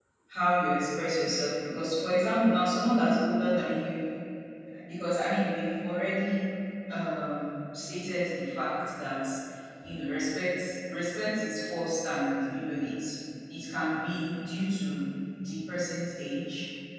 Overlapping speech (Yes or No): No